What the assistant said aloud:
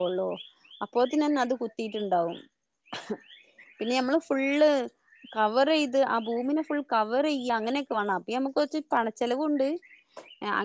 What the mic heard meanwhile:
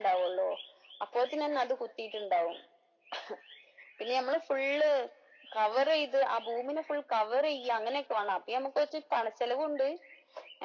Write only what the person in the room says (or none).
none